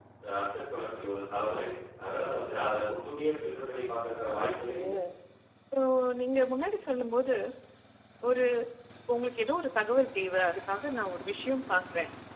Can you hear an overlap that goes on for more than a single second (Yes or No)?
No